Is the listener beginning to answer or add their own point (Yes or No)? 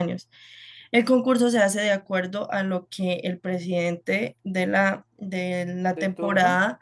No